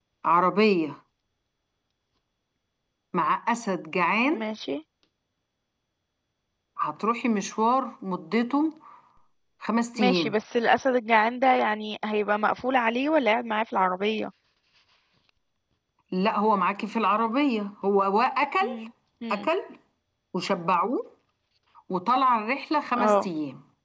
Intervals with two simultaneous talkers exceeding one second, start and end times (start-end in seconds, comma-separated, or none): none